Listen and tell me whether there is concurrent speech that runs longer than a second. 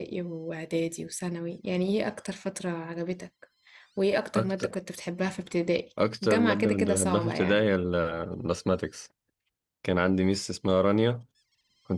Yes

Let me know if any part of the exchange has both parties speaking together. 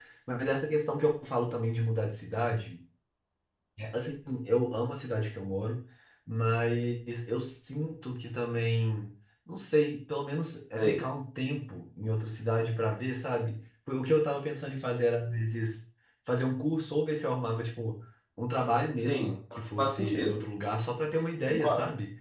Yes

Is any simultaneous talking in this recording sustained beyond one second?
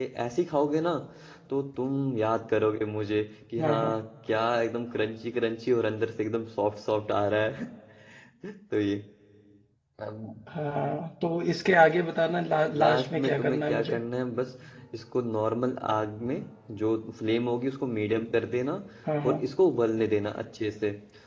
Yes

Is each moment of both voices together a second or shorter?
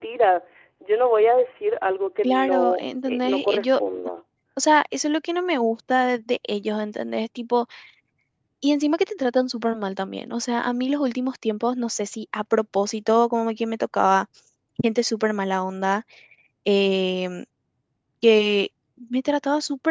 No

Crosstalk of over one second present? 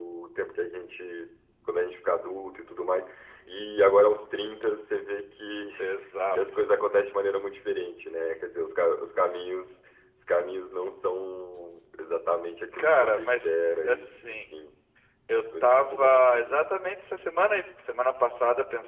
Yes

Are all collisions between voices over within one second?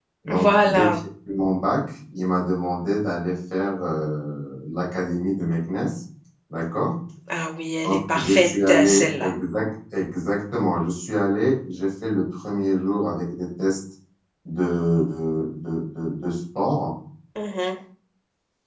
No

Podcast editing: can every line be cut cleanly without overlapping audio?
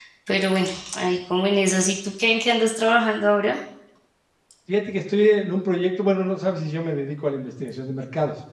Yes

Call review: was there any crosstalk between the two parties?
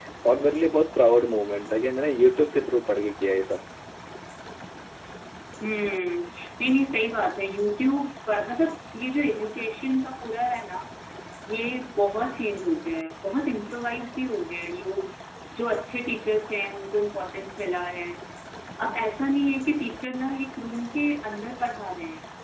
No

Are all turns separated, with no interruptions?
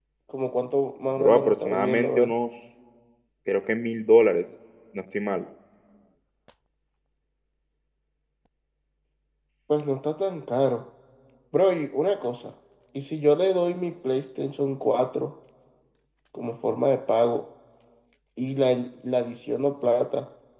No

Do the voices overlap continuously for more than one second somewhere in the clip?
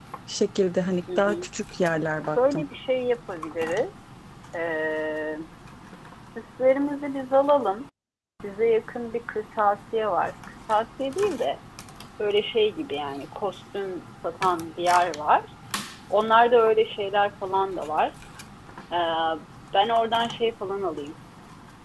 No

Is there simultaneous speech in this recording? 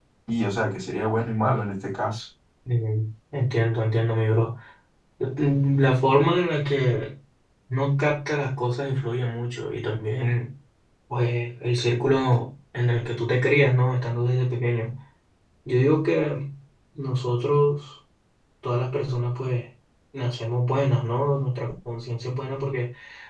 No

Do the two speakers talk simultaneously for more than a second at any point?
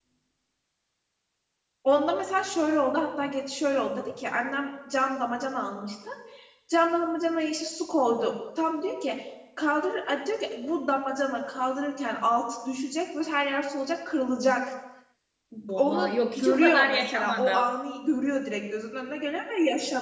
Yes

